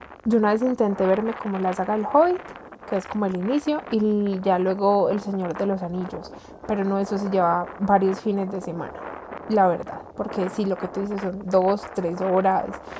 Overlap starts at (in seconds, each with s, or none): none